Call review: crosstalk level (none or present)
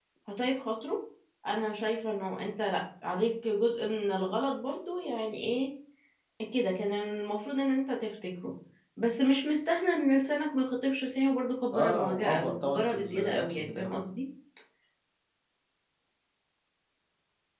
present